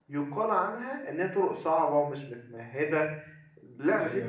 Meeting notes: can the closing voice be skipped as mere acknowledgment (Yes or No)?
Yes